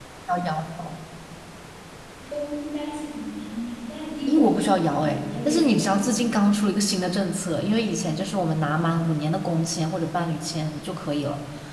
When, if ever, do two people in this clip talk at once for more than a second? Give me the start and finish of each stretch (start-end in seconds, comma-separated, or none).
4.3-6.2